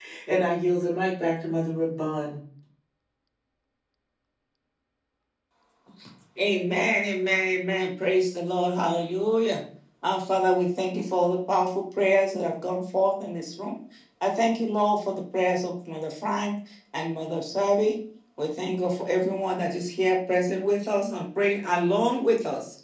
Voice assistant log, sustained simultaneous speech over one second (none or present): none